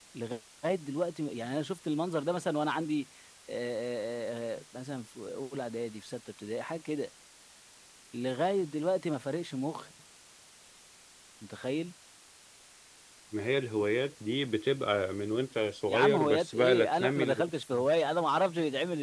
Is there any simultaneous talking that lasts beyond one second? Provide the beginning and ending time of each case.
15.9-17.5

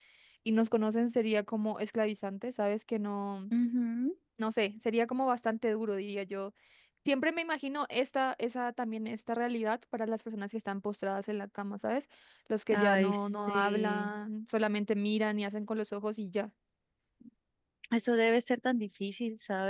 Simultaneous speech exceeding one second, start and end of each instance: 12.7-14.1

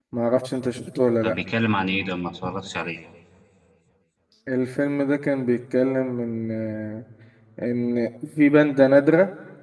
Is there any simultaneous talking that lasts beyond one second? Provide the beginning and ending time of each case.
none

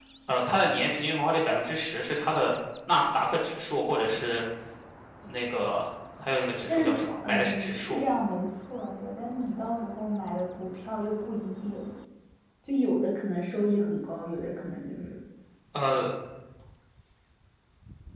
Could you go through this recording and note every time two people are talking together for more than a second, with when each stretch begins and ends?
6.7-8.0

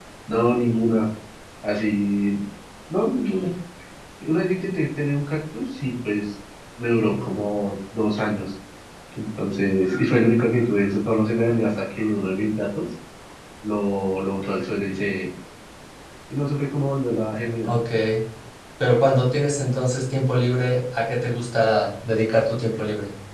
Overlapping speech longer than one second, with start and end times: none

